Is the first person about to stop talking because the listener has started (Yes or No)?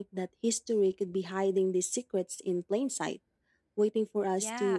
Yes